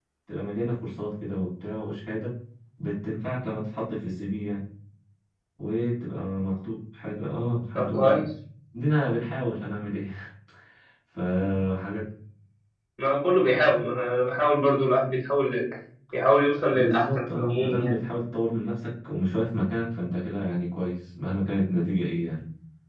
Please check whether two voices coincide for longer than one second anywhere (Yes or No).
Yes